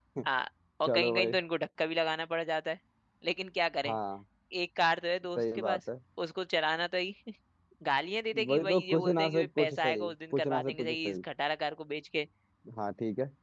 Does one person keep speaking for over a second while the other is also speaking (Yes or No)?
Yes